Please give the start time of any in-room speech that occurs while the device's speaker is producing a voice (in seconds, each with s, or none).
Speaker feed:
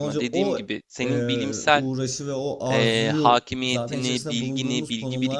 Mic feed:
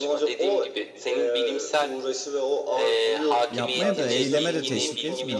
3.5 s